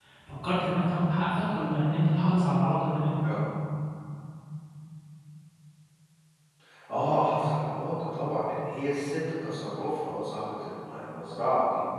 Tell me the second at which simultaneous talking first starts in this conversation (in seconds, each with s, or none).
none